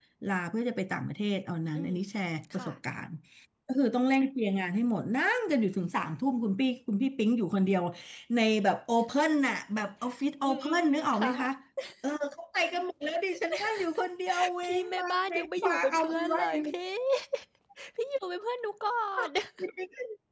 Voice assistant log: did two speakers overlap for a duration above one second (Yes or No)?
Yes